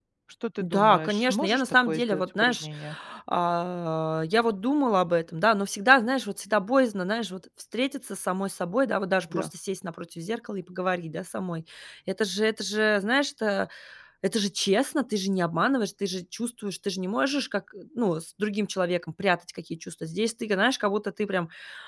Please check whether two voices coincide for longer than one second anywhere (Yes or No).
Yes